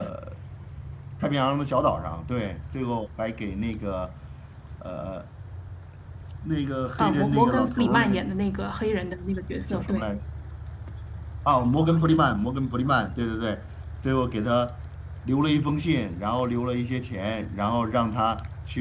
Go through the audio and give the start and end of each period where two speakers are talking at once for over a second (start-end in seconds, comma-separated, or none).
7.0-8.2